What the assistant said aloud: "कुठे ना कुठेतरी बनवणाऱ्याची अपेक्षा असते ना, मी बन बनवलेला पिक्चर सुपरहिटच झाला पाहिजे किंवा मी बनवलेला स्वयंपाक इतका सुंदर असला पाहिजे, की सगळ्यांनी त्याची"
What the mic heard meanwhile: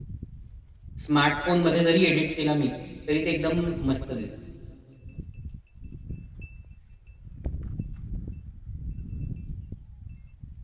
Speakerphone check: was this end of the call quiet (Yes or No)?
No